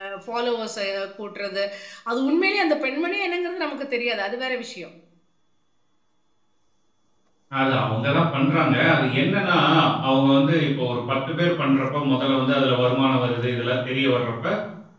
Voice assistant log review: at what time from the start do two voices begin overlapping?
none

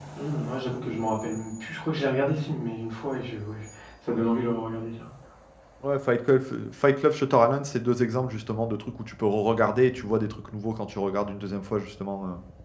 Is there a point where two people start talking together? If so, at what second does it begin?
none

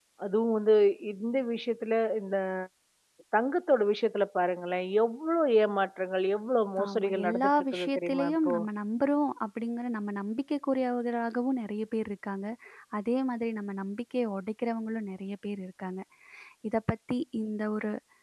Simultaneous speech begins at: 6.8 s

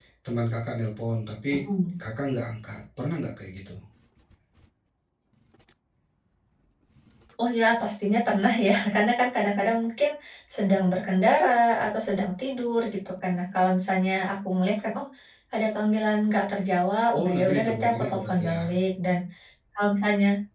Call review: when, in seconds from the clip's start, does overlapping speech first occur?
17.1 s

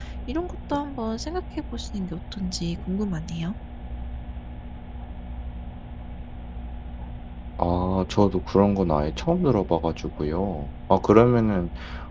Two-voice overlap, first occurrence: none

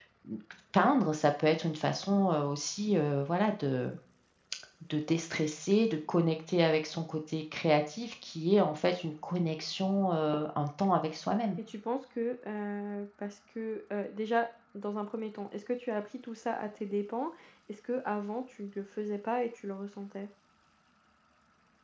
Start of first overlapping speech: none

